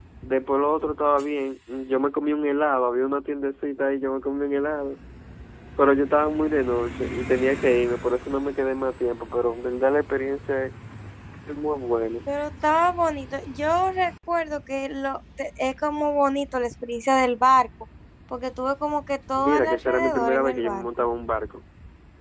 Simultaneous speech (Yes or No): Yes